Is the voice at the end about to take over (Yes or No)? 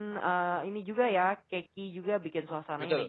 No